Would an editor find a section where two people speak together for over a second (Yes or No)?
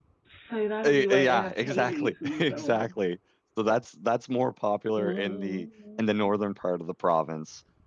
Yes